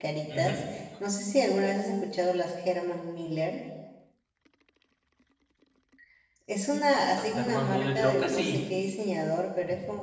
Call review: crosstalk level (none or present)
present